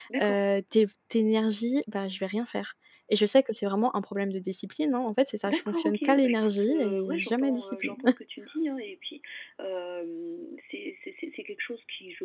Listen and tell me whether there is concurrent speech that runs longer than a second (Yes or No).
Yes